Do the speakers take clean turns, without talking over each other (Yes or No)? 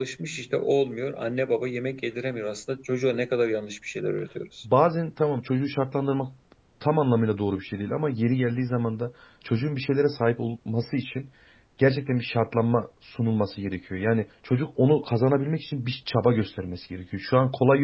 Yes